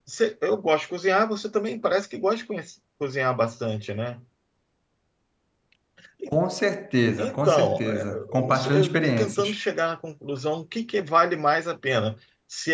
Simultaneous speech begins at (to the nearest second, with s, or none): 7 s